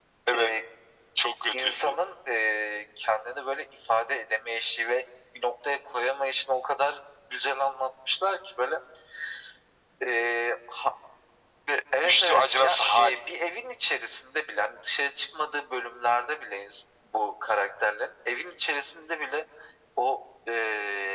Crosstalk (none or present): present